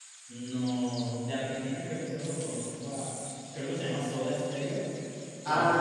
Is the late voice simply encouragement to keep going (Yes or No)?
No